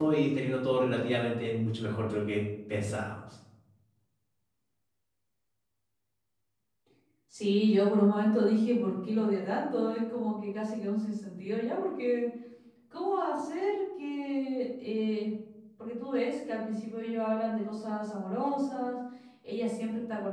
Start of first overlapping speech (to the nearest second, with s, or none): none